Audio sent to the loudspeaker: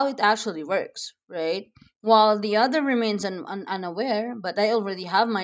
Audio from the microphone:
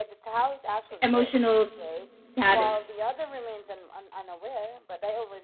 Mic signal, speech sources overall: both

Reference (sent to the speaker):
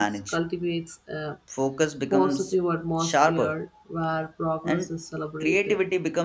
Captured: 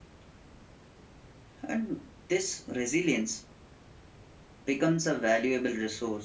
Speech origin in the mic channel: user only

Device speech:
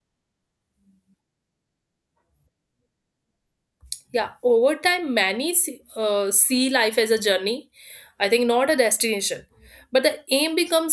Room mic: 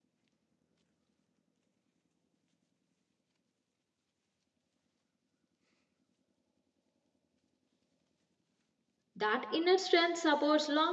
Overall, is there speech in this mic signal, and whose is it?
user only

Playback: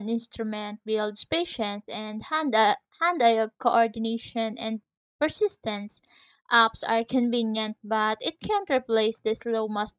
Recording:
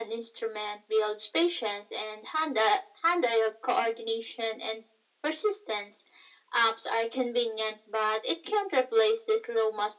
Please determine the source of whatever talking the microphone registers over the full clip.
echo only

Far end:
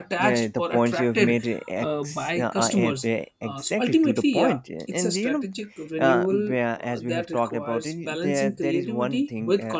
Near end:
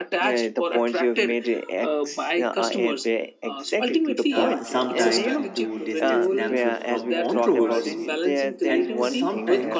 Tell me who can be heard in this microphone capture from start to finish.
both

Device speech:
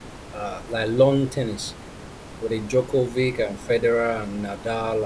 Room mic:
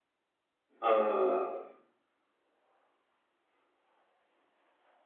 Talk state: user only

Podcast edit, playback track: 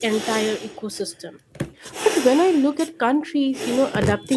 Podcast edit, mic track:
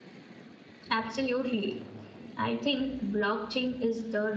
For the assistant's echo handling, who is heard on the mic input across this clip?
user only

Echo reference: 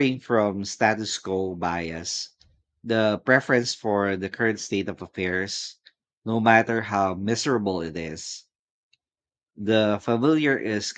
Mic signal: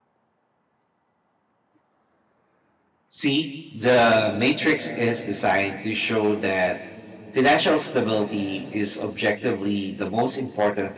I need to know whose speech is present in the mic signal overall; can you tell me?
user only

